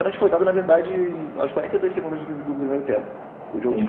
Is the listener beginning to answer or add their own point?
Yes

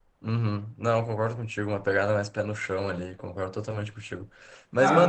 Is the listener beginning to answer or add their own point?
No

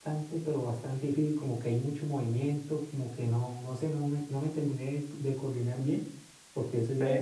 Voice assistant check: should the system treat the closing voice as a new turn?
No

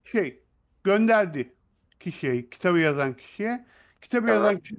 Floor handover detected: No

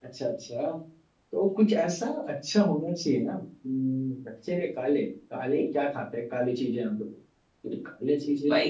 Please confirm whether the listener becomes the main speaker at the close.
Yes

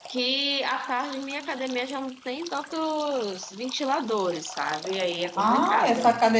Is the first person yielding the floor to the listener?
Yes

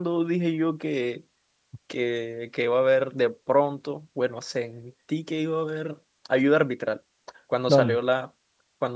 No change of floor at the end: Yes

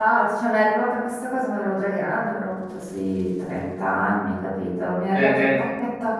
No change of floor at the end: Yes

